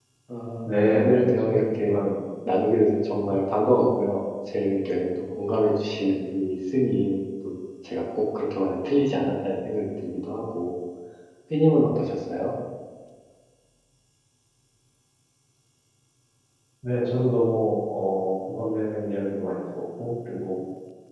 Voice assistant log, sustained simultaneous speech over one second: present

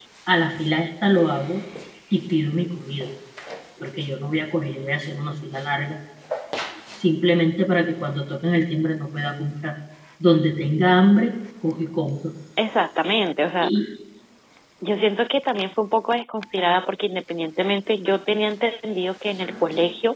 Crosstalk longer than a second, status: none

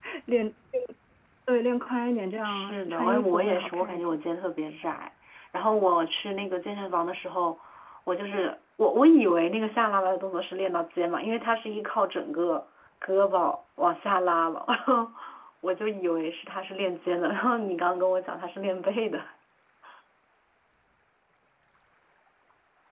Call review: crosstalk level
present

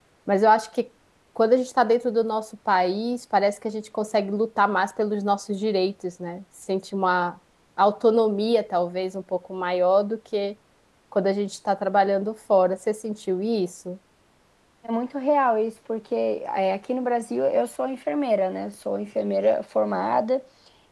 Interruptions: none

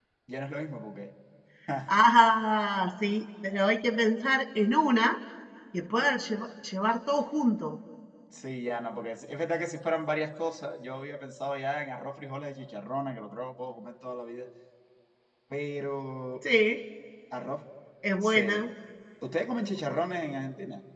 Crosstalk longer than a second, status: none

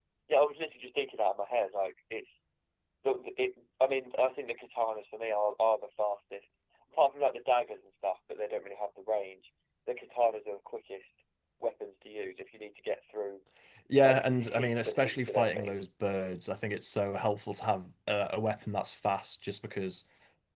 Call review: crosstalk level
present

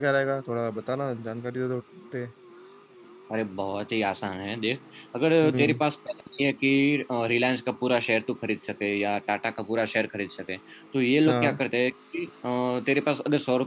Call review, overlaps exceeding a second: none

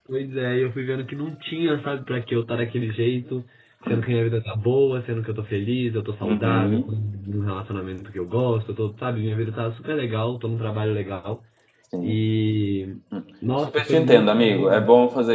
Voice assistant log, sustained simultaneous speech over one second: present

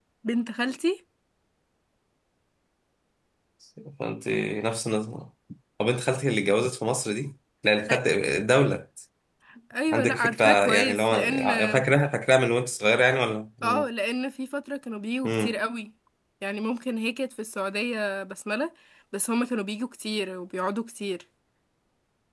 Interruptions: present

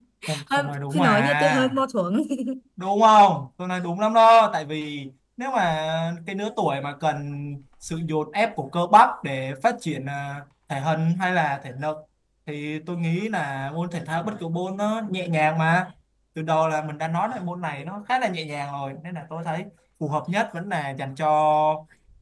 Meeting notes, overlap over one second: present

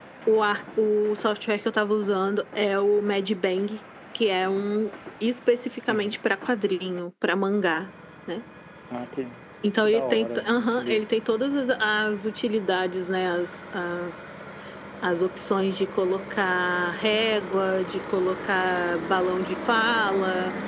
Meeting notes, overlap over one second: present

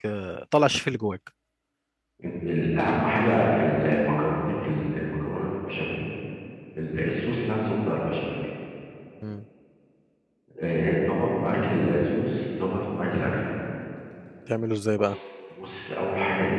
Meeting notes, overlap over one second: none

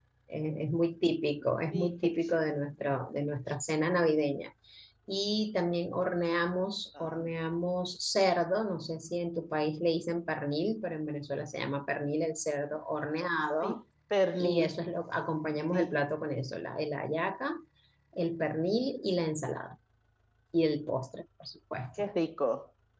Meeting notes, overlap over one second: none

